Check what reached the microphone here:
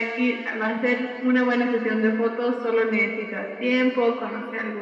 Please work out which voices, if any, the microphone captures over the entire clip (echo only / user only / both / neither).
echo only